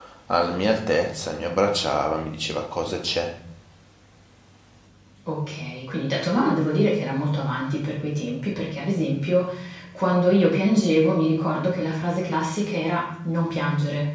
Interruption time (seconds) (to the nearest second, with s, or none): none